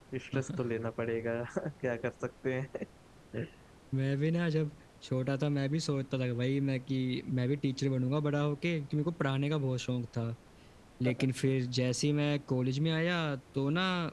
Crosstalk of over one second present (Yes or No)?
No